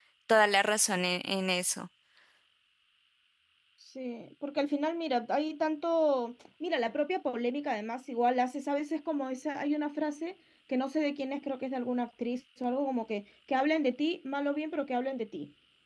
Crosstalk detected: No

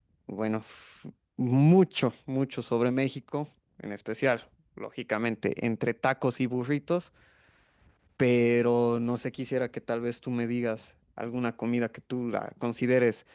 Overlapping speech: No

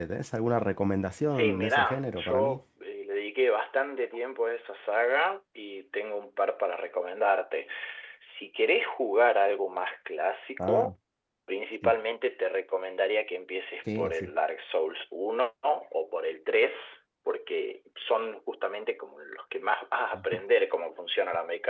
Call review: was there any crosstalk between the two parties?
Yes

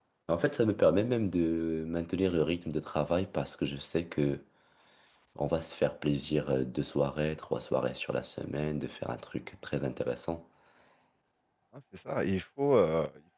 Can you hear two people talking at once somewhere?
No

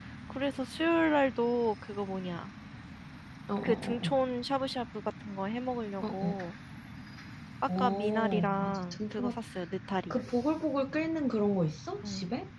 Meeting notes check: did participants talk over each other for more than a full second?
Yes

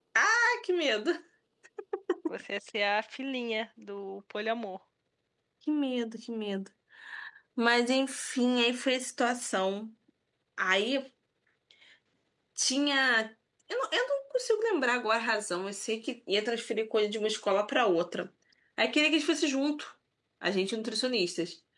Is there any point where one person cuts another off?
No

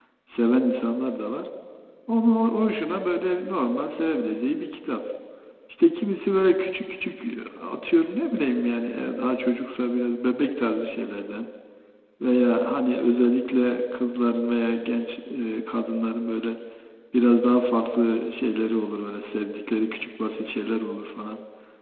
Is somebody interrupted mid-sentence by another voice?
No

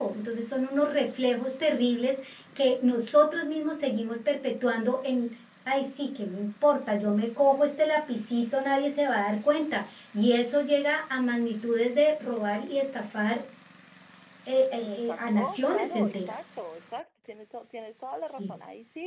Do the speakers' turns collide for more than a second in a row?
Yes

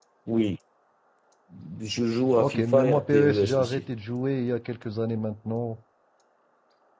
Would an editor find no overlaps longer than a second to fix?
No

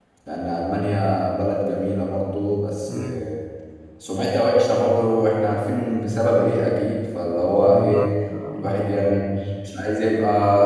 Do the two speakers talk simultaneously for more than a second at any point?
No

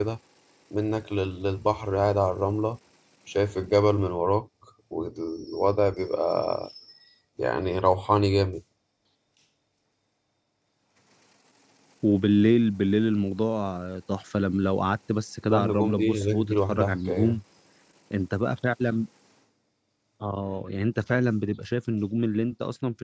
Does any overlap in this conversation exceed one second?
Yes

